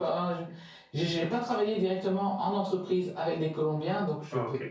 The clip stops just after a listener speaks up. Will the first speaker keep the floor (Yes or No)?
Yes